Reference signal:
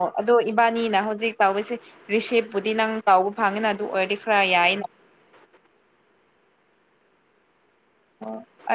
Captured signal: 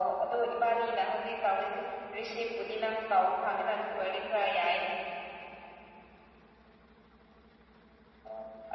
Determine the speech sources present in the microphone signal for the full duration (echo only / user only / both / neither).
echo only